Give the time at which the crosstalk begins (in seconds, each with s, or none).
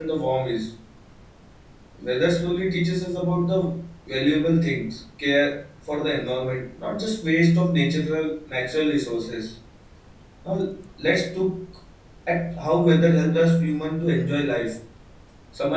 none